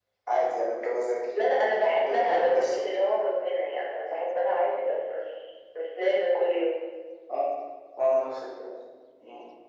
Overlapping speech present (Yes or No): Yes